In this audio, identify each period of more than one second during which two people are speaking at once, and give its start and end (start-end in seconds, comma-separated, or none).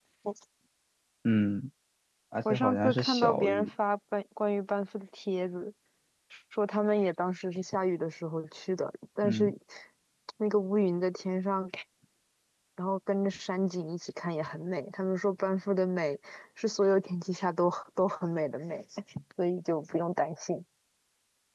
2.4-3.7